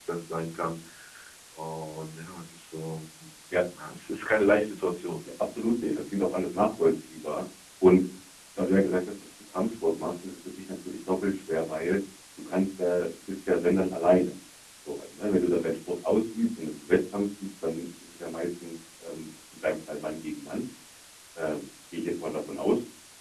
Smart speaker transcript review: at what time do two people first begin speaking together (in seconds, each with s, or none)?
none